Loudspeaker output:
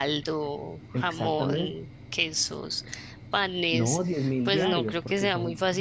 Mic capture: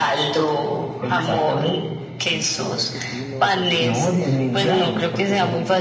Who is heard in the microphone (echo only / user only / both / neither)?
both